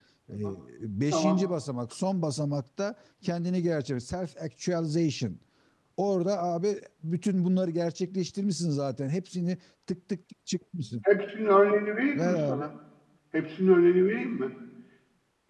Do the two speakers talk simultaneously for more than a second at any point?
No

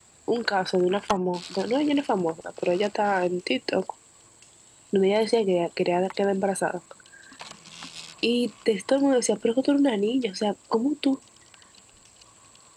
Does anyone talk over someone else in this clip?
No

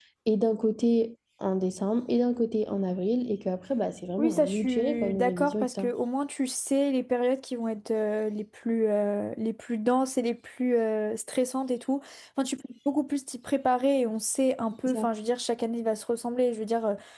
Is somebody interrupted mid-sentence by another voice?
Yes, from 4.2 s

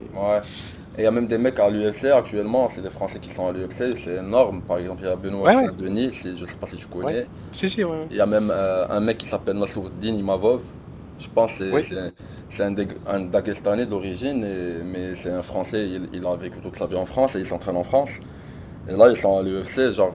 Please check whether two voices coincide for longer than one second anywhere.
No

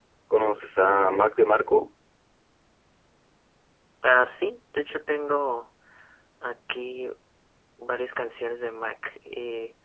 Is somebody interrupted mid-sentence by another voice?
No

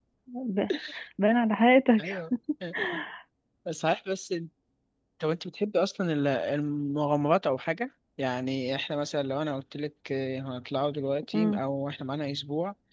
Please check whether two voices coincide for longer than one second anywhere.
No

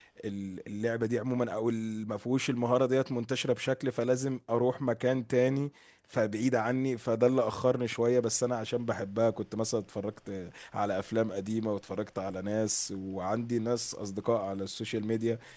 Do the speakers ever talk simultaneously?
No

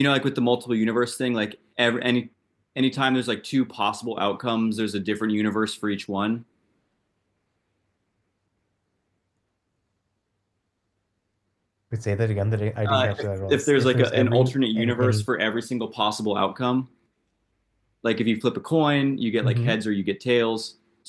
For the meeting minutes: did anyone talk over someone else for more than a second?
Yes, from 12.9 s

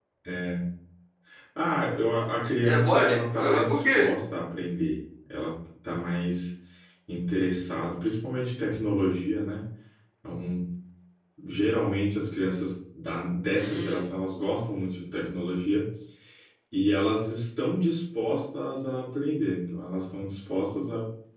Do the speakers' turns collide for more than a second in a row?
Yes, from 2.6 s

